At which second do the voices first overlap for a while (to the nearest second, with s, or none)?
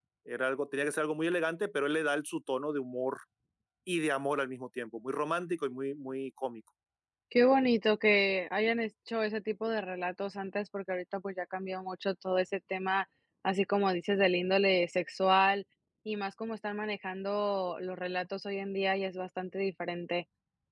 none